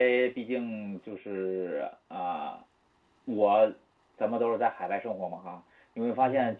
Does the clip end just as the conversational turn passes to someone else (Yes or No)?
No